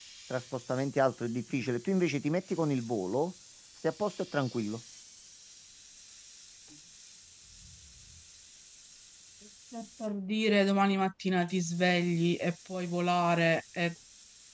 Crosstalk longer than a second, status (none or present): none